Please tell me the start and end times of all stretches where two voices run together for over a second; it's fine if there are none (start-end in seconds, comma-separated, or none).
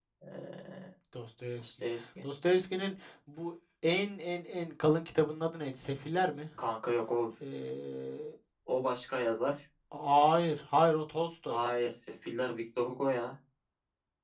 none